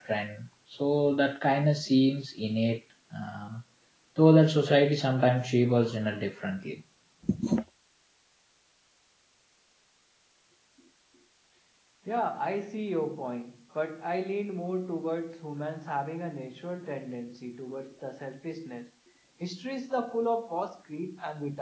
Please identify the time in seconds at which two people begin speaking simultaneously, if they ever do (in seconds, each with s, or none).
none